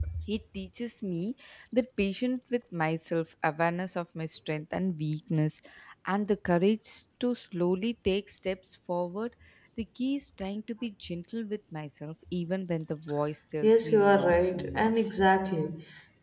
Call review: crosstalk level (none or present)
present